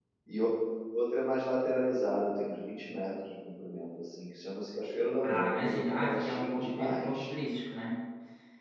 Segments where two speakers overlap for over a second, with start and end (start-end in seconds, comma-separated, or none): 5.2-7.3